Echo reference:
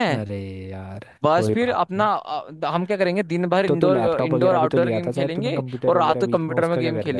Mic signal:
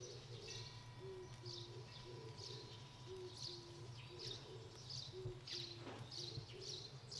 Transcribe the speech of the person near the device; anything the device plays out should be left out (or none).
none